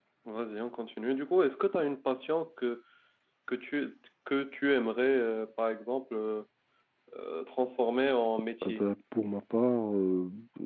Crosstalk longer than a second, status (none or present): none